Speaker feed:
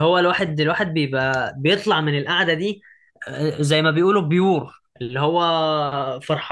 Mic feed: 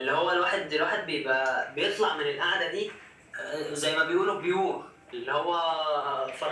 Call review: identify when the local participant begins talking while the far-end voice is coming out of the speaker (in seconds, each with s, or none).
none